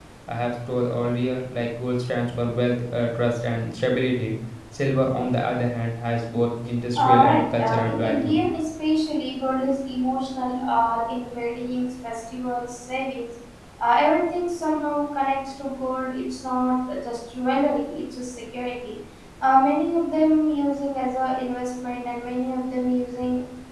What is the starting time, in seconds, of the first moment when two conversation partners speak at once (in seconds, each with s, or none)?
7.0 s